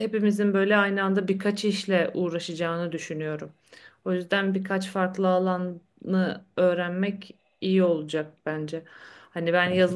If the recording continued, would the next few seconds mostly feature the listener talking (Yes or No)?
No